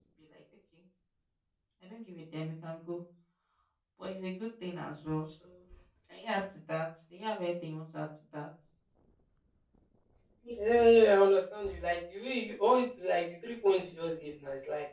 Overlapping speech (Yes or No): No